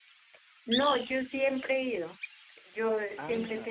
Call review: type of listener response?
listening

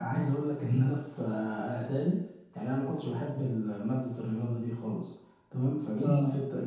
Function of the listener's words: listening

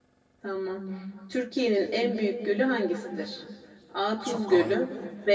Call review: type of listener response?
listening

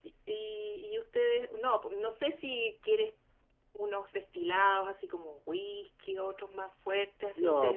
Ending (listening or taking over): taking over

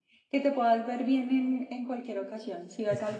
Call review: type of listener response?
listening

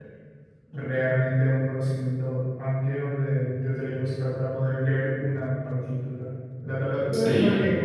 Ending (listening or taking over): listening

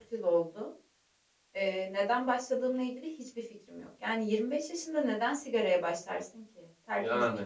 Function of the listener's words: listening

